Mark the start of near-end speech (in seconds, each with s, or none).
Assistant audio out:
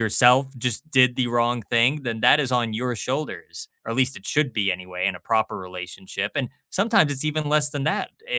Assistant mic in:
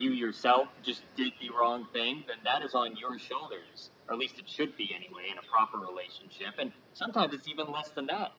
none